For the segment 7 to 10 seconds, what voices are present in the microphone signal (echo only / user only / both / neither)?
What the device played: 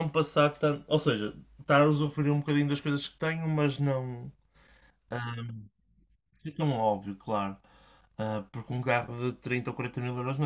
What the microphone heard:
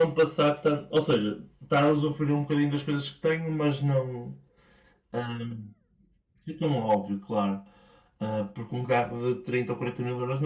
echo only